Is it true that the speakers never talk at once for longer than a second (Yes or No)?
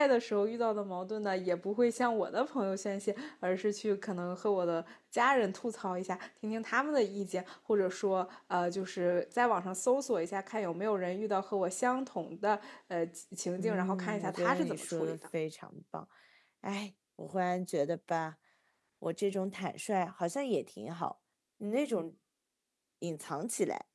No